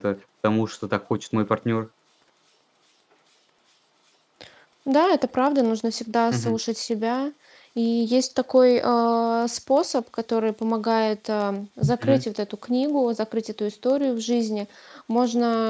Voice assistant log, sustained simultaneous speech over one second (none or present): none